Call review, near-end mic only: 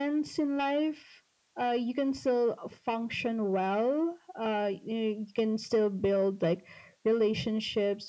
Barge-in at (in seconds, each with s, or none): none